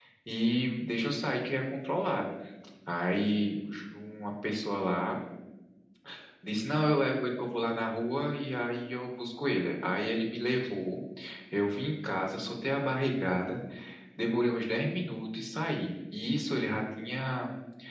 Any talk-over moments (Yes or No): No